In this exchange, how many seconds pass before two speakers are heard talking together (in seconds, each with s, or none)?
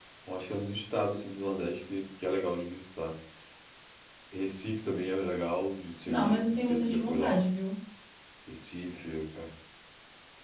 6.0 s